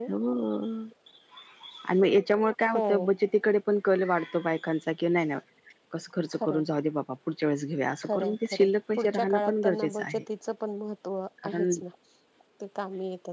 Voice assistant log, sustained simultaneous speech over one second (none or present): present